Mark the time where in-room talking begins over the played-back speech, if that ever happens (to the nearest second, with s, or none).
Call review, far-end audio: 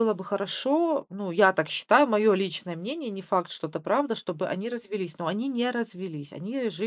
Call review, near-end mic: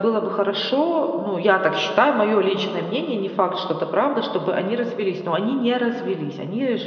none